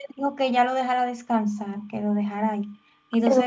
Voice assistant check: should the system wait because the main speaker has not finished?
No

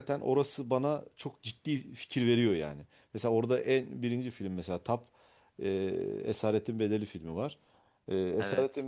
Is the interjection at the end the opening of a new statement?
No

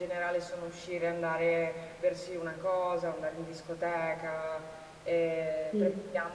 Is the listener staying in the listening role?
Yes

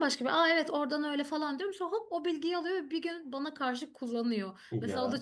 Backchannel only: Yes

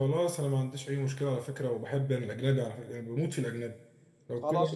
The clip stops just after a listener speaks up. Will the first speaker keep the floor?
No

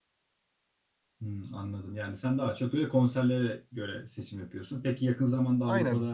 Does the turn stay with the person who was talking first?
Yes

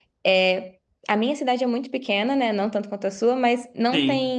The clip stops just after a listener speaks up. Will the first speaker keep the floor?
Yes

